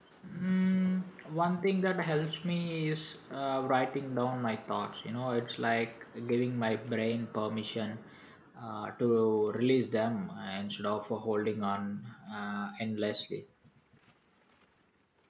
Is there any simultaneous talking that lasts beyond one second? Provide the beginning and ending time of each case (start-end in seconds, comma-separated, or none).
none